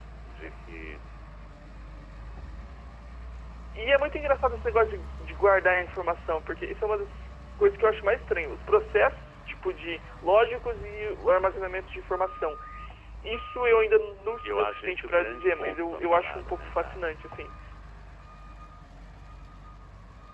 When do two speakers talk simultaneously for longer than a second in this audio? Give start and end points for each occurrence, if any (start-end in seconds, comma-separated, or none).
14.4-17.1